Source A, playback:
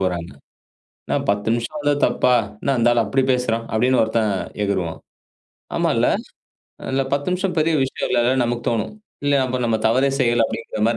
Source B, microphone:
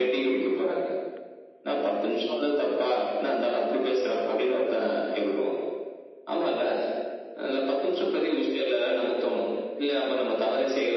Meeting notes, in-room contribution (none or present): none